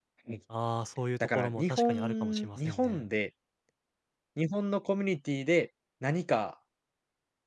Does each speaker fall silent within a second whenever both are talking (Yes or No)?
No